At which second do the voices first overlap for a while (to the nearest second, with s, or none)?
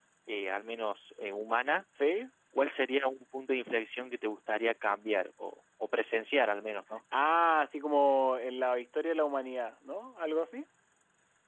none